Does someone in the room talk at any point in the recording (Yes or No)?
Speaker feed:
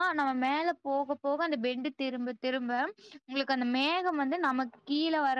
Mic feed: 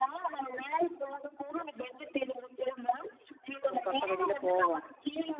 Yes